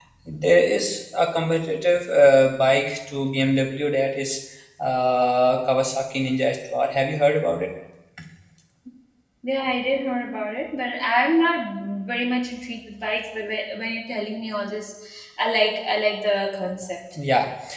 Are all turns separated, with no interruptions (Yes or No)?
Yes